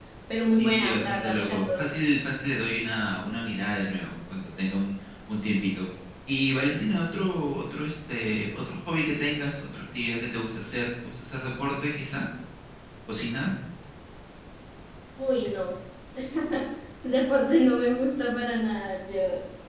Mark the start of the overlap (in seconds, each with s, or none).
0.6 s